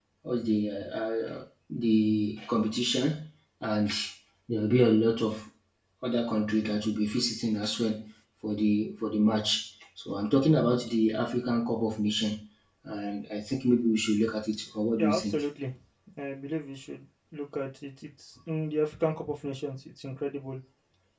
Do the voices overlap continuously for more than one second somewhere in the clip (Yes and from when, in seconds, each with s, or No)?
No